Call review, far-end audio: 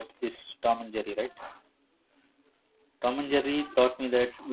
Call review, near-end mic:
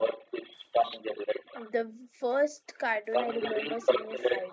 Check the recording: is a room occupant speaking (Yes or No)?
Yes